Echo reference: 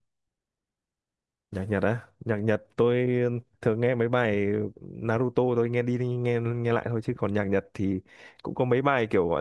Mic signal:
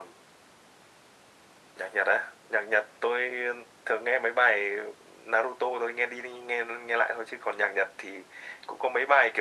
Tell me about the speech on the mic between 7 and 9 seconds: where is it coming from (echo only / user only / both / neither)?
echo only